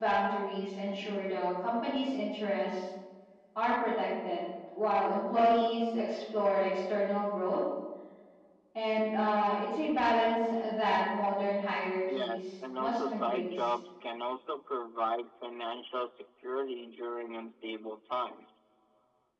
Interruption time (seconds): 12 s

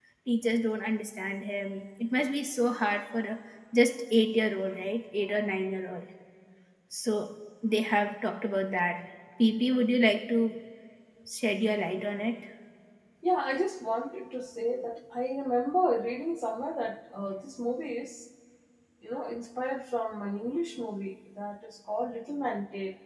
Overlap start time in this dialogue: none

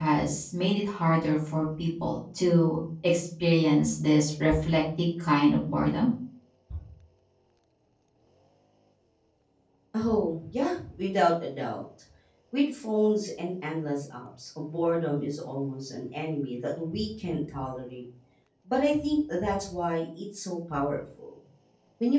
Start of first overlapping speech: none

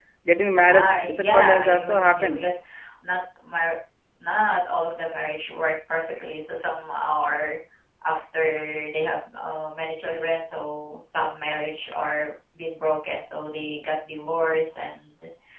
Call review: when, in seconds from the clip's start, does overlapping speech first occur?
1 s

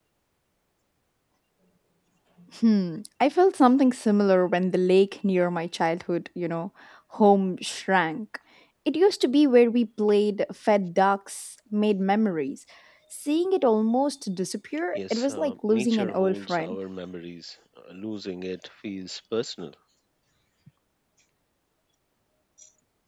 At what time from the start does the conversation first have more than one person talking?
15 s

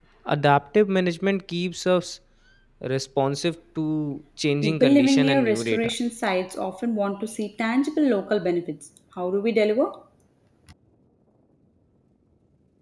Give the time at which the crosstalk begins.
5 s

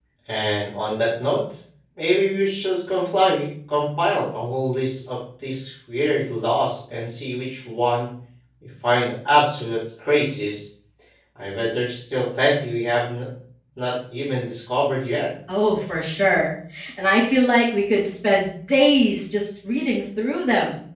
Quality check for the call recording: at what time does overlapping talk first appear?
none

